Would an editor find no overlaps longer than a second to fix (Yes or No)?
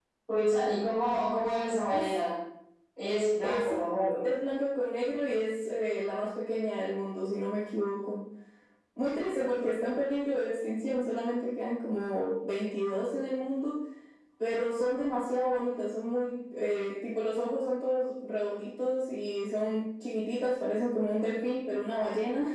Yes